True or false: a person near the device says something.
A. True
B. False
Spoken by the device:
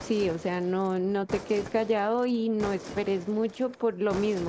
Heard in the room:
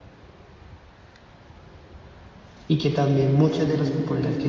A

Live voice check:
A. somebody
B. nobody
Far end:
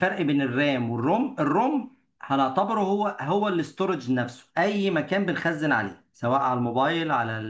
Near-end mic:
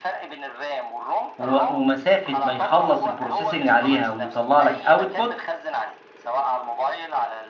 A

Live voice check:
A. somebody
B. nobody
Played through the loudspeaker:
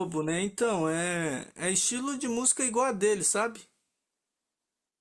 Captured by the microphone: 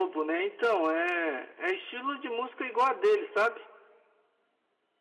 B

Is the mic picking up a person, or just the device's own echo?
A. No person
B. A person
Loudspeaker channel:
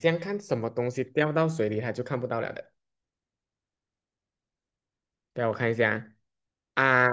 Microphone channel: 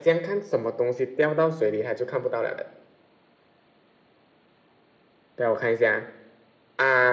A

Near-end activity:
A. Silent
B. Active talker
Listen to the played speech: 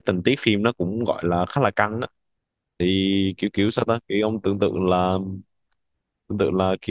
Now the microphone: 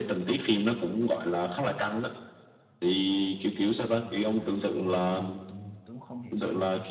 B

